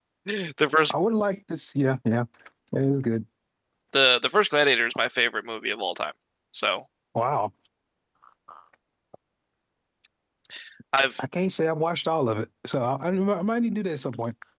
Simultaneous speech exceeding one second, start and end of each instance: none

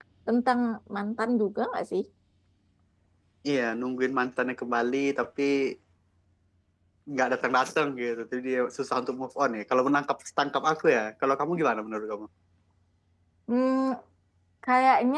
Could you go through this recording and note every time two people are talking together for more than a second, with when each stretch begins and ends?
none

